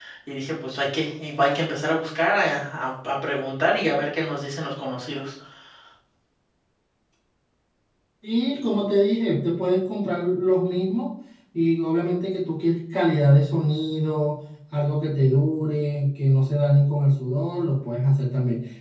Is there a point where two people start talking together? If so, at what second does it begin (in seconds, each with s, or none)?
none